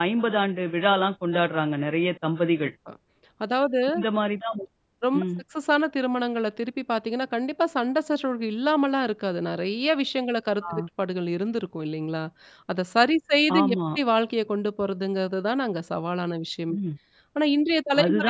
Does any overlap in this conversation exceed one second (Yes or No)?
No